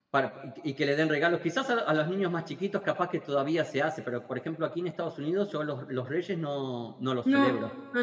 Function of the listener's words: taking over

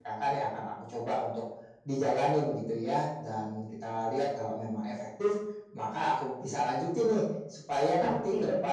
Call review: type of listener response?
listening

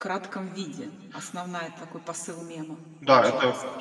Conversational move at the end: taking over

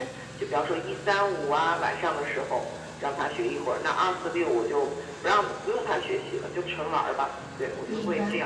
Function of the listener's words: taking over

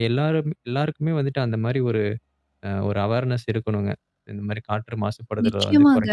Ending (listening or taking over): taking over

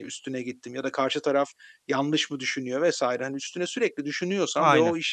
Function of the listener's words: listening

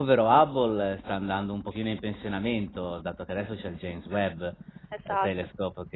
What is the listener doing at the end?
listening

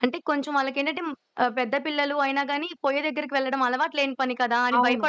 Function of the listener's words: taking over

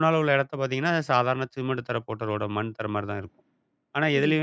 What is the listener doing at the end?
listening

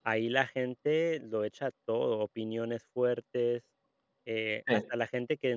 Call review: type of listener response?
listening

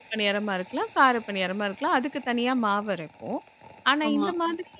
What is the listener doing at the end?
listening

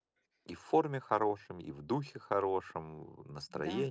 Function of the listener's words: taking over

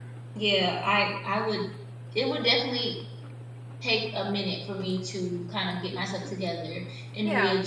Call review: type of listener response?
listening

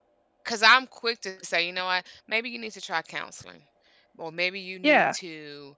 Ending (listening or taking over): listening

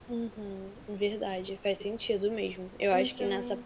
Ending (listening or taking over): listening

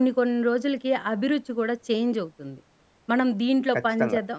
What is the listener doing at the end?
listening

